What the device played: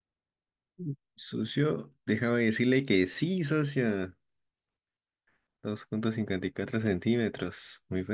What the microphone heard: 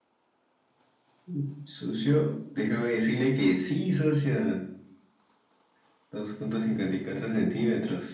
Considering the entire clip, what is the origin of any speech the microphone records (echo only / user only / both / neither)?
echo only